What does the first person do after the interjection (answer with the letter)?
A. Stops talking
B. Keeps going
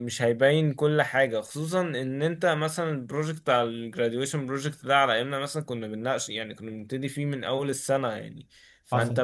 B